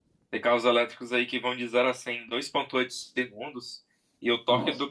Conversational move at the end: listening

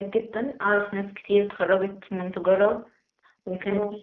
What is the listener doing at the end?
listening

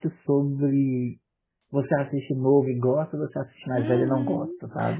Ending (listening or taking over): taking over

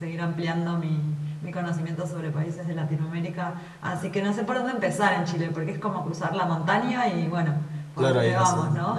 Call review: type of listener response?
taking over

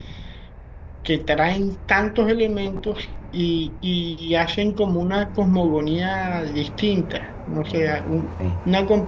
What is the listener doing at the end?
listening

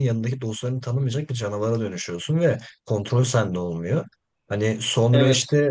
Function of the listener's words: listening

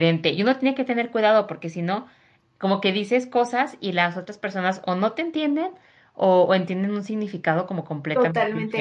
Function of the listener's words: taking over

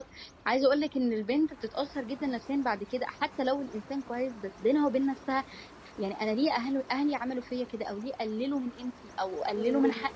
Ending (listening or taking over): taking over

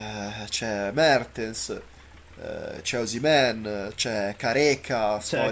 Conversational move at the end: taking over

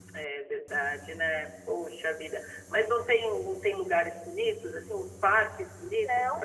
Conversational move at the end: taking over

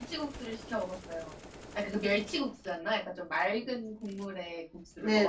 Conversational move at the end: taking over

